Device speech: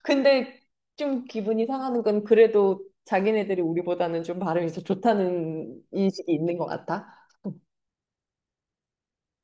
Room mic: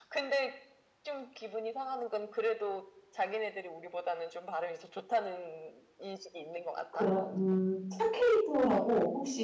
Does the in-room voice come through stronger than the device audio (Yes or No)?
Yes